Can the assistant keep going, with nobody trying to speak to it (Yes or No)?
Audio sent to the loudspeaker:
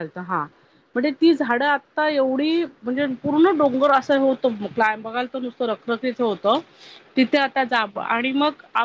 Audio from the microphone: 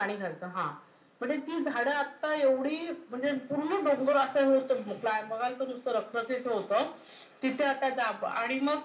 Yes